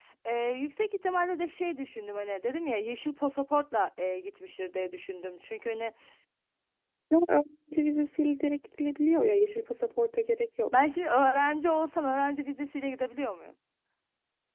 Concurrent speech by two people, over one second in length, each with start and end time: none

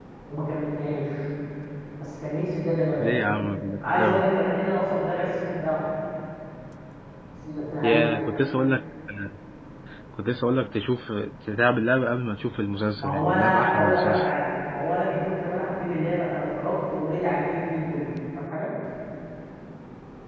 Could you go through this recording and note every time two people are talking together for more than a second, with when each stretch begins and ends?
13.0-14.3

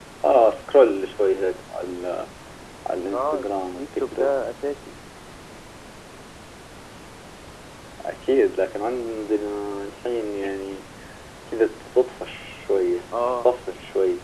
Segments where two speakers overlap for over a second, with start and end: 3.1-4.4

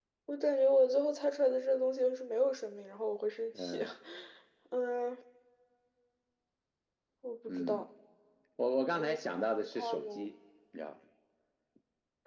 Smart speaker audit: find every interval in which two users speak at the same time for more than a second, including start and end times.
8.9-10.3

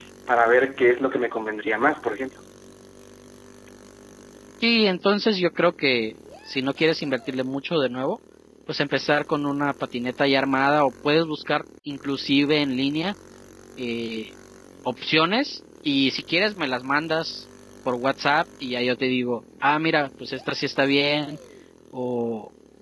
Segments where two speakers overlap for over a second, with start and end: none

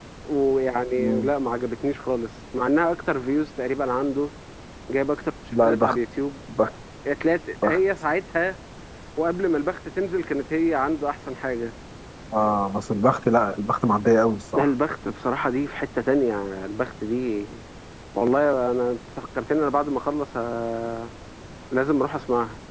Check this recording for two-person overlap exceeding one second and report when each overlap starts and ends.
none

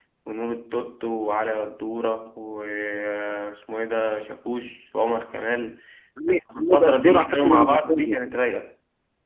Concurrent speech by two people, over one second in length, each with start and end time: 6.3-8.2

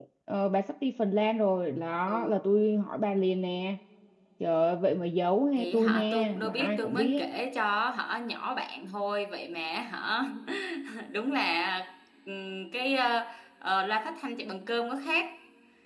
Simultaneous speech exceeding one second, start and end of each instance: 5.6-7.2

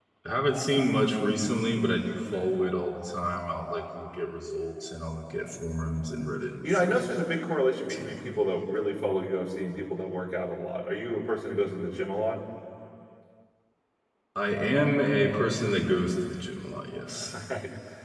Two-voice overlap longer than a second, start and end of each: none

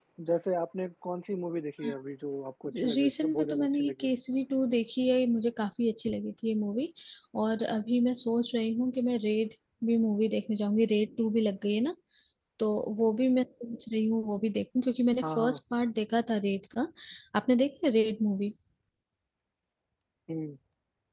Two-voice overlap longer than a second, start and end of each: 2.8-4.1

